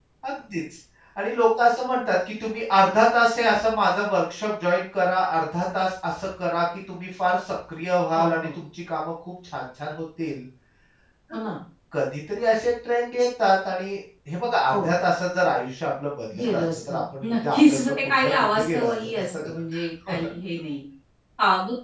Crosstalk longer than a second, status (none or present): present